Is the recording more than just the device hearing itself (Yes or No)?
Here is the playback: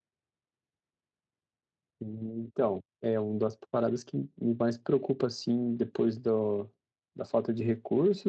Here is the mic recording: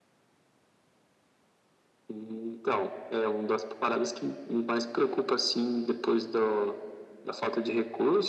No